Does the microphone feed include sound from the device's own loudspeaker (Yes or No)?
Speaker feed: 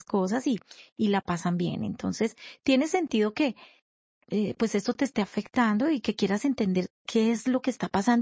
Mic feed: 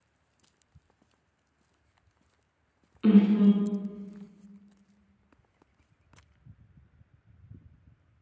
No